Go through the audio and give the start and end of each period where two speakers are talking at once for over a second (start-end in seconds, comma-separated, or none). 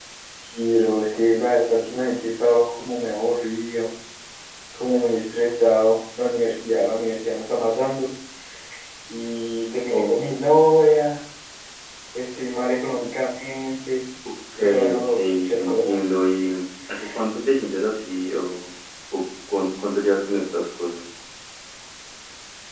14.6-16.1